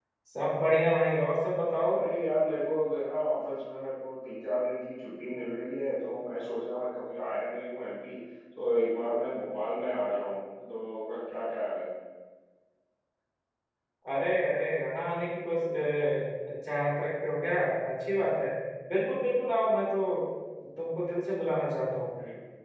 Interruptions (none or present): none